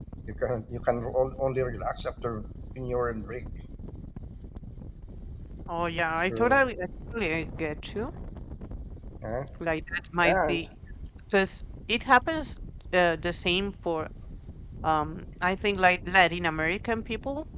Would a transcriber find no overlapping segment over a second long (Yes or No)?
Yes